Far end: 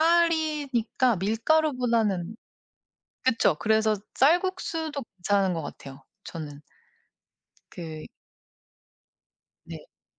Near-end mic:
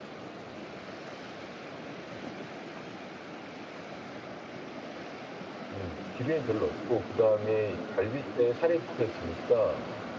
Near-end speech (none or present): present